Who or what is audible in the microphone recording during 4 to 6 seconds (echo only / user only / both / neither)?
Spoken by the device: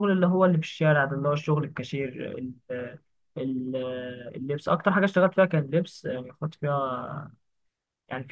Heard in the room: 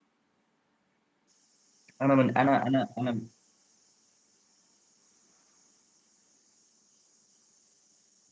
neither